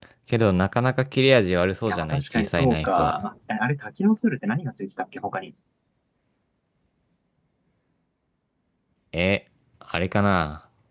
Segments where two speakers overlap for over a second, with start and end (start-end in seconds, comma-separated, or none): 1.9-3.1